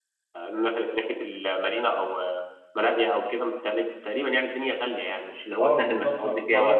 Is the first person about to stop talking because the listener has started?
Yes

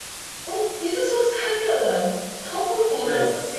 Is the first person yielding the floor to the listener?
Yes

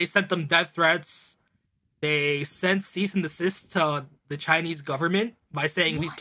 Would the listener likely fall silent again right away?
Yes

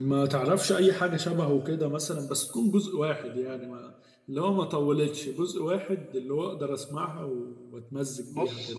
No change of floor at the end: No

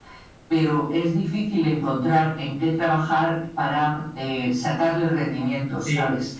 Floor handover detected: Yes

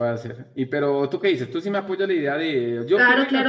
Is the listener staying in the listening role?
No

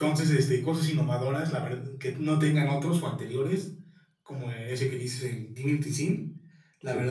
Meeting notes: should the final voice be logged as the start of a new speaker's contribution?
No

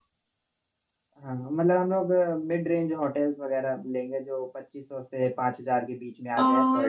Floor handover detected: Yes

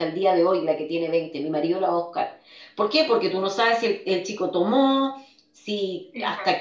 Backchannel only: Yes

